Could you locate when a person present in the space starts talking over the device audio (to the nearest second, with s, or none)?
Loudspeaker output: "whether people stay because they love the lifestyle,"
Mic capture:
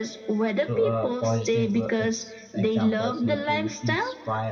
1 s